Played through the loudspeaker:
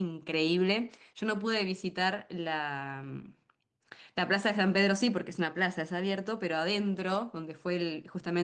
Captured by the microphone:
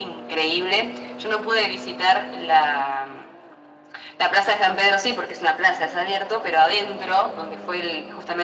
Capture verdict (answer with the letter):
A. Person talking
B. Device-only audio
B